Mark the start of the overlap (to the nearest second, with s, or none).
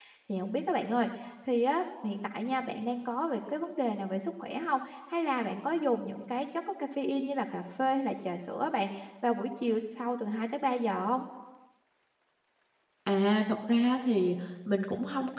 none